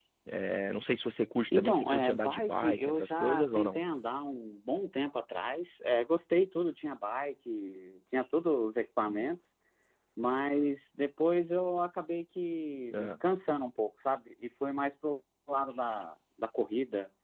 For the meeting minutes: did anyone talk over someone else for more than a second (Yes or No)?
Yes